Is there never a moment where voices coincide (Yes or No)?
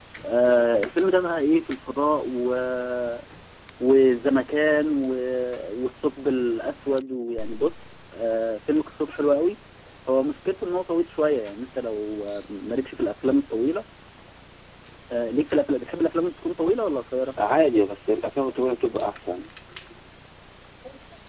Yes